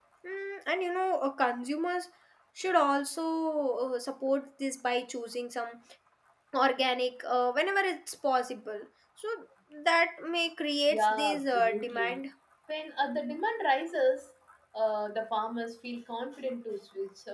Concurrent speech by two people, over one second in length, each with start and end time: 10.9-12.2

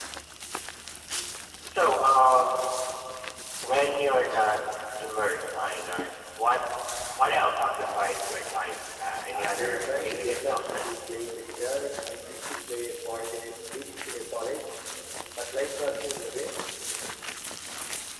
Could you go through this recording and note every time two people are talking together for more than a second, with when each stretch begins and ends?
9.3-10.8

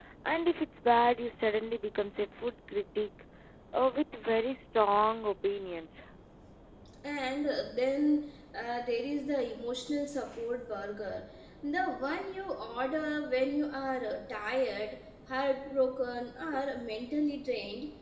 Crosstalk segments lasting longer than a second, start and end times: none

